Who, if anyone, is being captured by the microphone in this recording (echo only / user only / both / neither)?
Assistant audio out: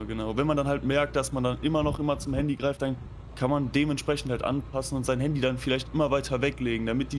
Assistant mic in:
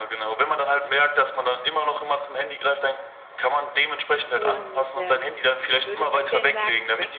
both